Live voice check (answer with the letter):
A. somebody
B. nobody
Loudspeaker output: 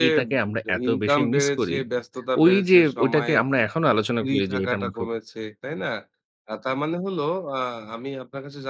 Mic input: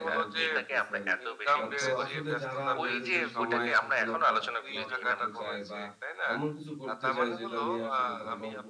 A